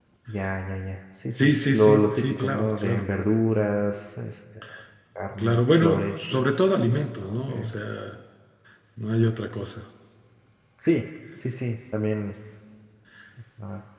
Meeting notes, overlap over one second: present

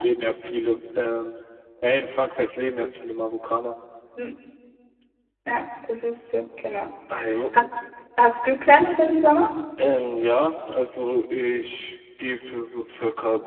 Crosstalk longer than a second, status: none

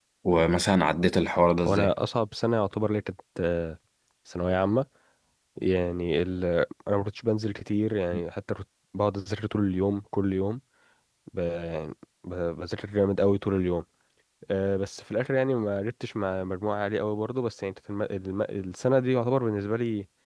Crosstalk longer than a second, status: none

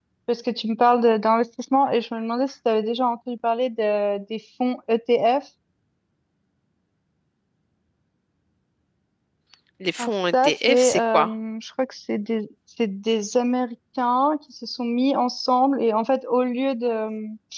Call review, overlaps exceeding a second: present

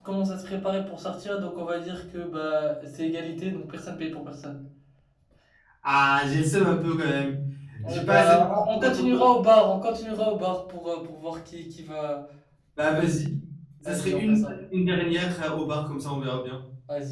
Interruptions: present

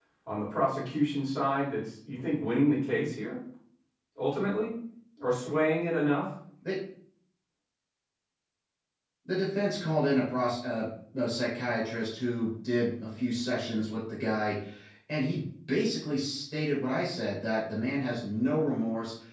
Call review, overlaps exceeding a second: none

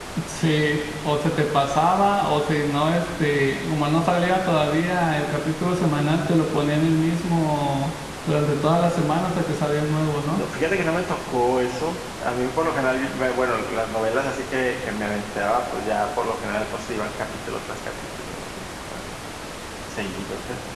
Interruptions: none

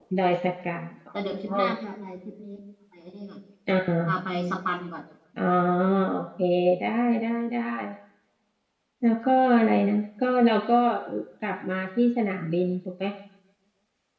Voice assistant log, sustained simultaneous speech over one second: none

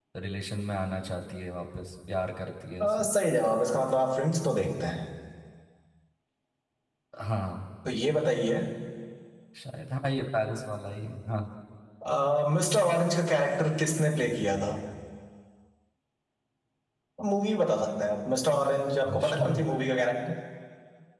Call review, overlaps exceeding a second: none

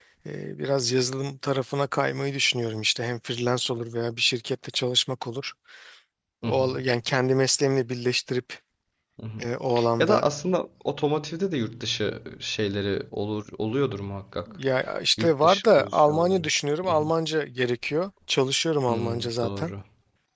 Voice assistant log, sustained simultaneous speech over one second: present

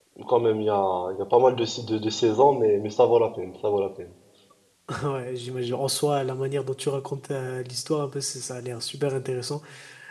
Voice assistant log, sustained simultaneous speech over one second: none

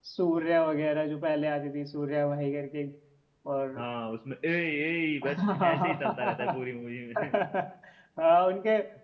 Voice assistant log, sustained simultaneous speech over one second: present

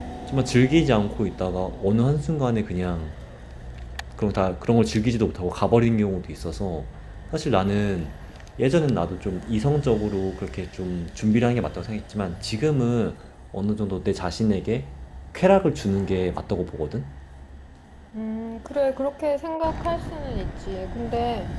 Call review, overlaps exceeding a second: none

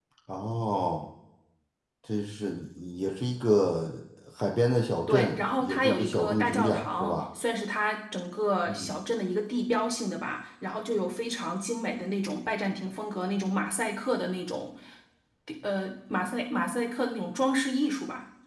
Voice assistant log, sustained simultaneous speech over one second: present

